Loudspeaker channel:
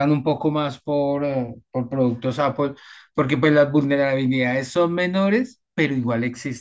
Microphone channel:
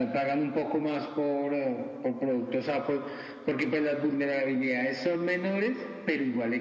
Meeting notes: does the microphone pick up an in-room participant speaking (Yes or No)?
No